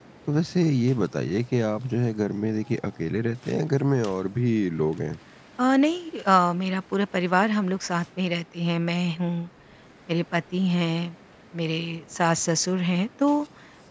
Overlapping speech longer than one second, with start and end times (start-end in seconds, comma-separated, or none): none